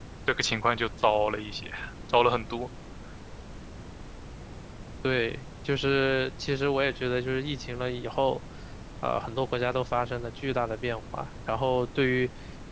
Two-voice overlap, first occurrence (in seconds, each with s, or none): none